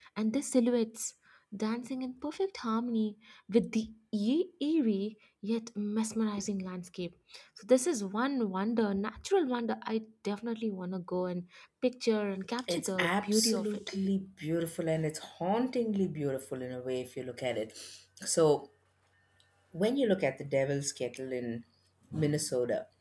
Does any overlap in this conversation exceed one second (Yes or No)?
Yes